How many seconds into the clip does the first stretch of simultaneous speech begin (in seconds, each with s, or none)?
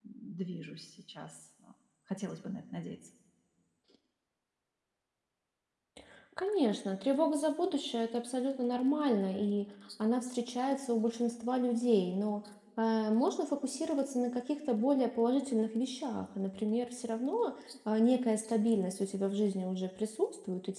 none